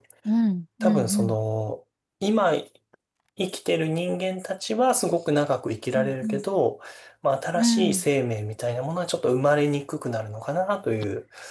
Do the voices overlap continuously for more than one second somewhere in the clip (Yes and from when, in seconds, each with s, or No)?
No